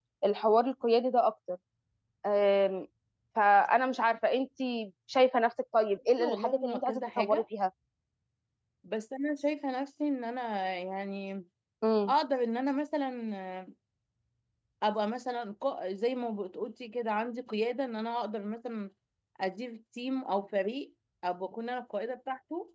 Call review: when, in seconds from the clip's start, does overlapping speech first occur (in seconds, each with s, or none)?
6.2 s